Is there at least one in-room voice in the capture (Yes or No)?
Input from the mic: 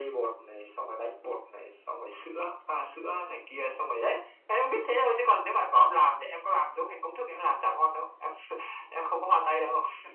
No